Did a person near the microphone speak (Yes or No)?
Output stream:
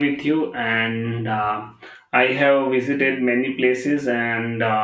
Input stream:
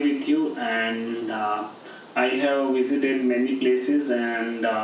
No